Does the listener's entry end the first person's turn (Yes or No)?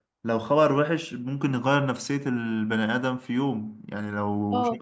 No